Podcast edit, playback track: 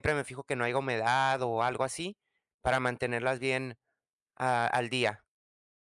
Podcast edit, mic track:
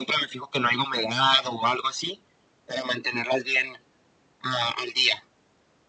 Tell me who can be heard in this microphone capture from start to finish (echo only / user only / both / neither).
echo only